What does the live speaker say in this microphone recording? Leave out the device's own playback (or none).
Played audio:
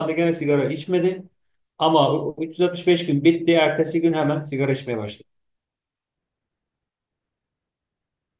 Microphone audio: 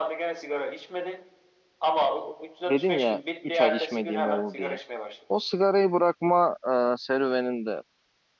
dedin ya 3 ay içmediğim oldu diye. O sigarayı bırakma e, serüveninde